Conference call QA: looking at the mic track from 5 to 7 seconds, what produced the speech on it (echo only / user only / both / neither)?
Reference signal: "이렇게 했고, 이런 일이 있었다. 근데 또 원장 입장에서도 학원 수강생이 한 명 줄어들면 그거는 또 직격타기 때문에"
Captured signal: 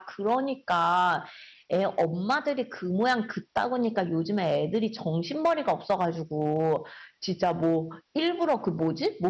user only